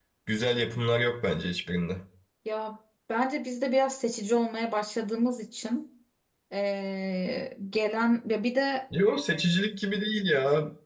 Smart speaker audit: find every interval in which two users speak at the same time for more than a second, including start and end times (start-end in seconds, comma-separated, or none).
none